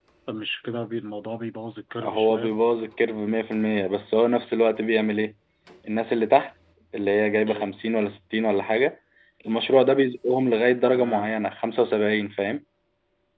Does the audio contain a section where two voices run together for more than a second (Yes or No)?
No